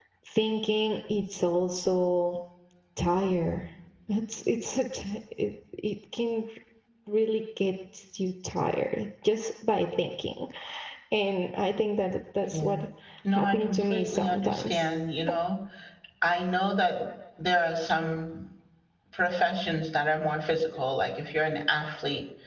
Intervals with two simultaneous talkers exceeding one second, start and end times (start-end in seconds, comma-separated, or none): 13.3-14.9